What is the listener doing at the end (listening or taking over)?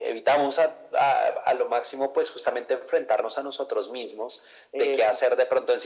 listening